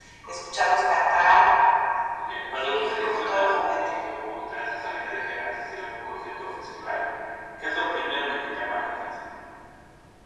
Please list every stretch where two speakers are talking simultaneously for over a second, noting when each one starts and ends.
2.5-3.9

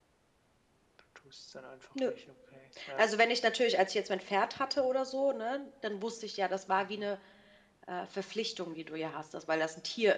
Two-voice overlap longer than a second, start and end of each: none

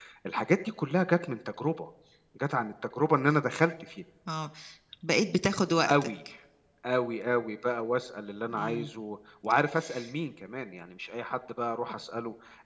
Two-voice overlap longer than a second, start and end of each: none

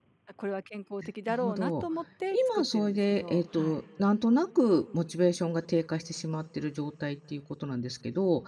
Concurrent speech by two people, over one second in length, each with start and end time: 2.5-3.8

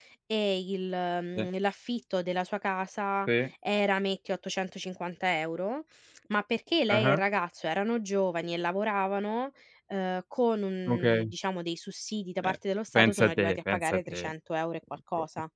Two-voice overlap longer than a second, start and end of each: 13.0-14.3

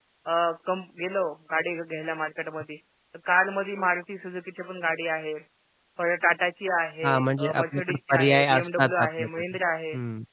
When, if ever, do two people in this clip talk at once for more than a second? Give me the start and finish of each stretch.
7.0-9.3

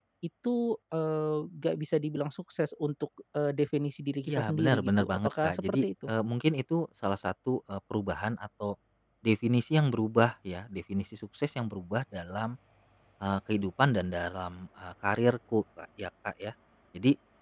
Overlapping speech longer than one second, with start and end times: 4.3-6.1

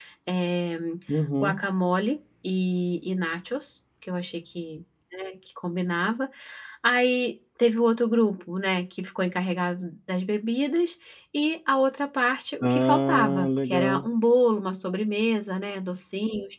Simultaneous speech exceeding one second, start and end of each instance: 12.6-14.1

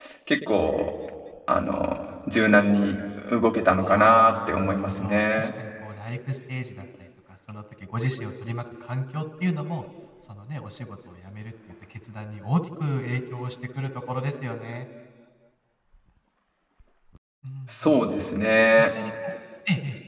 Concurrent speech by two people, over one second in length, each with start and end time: 3.8-5.5

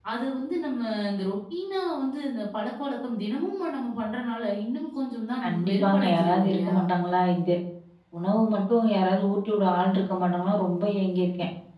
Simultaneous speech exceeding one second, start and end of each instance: 5.4-6.8

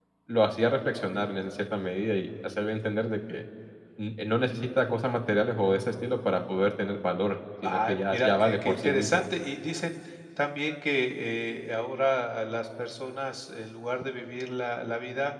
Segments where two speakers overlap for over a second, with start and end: 7.6-9.2

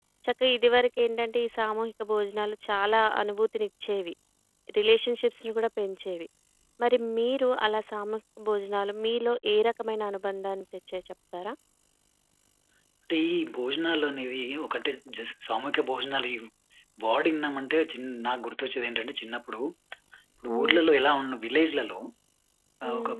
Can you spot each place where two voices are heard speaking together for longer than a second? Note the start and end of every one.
none

